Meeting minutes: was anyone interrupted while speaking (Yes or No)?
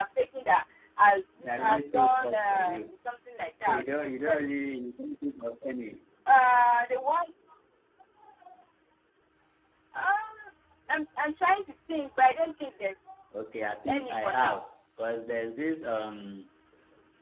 Yes